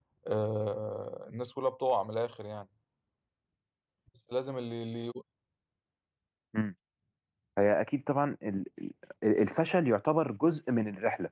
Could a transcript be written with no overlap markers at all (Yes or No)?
Yes